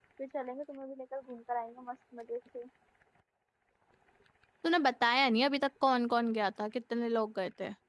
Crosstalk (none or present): none